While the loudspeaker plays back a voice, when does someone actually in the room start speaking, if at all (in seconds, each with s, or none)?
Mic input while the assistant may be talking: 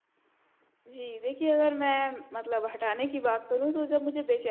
0.9 s